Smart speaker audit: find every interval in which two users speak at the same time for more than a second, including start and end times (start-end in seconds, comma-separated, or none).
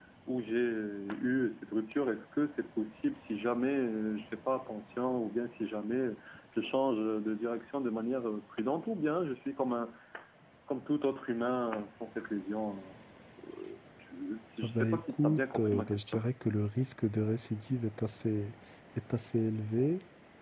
14.6-16.2